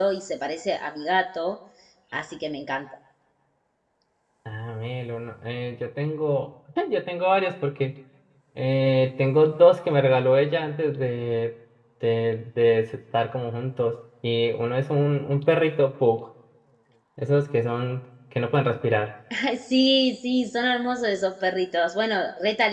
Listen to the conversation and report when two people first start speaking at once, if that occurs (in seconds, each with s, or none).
none